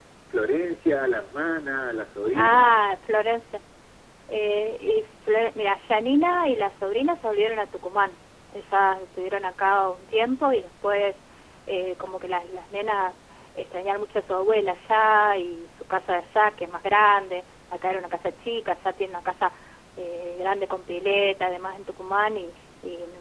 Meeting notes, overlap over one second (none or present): none